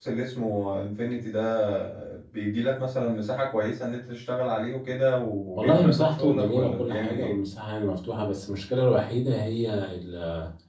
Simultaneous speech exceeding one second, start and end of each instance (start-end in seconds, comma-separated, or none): 5.5-7.3